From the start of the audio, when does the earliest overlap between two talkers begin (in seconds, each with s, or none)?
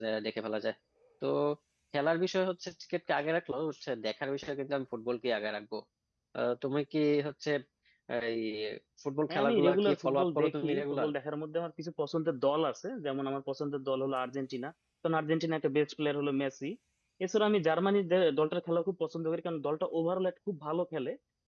9.3 s